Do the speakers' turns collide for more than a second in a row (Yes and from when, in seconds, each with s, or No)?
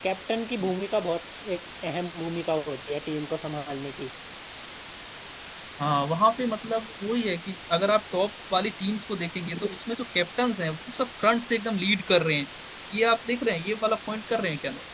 No